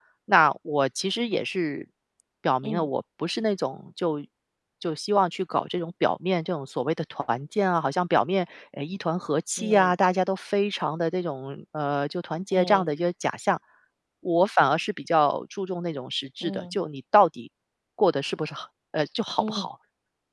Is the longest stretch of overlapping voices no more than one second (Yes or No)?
Yes